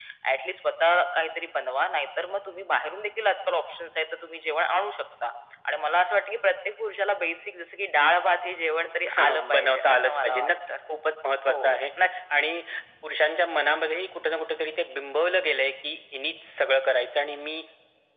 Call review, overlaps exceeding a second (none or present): present